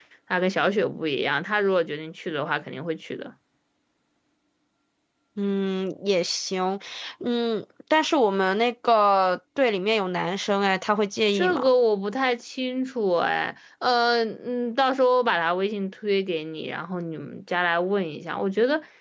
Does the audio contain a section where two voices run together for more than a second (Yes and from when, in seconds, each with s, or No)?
No